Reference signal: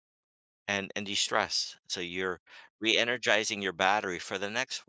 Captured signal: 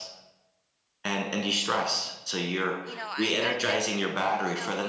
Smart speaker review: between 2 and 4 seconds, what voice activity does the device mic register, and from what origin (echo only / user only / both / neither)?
both